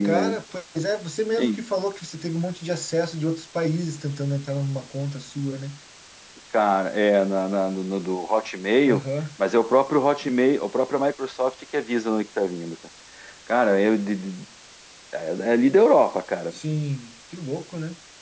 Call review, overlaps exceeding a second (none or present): none